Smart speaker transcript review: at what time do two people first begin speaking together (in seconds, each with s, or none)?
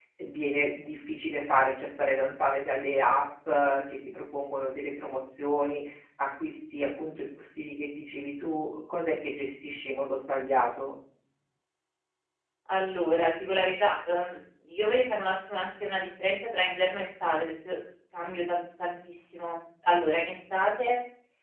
none